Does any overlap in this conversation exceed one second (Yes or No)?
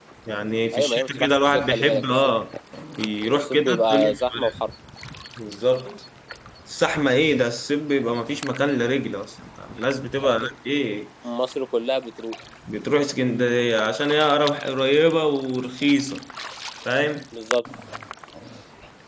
Yes